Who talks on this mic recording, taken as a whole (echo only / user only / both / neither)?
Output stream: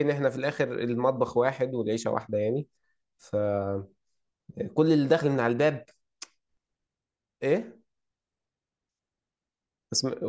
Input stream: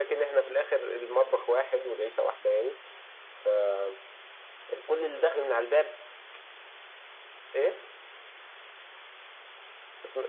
echo only